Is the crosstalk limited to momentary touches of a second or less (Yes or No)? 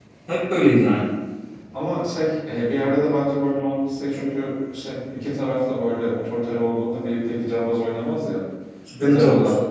Yes